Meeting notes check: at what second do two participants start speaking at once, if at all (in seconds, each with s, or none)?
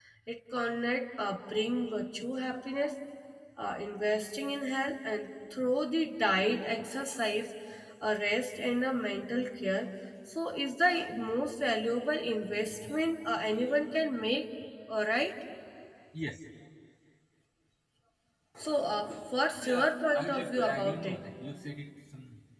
19.6 s